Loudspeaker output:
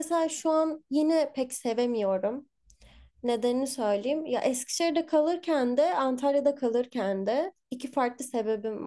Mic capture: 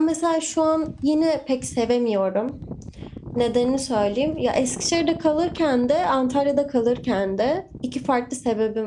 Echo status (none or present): present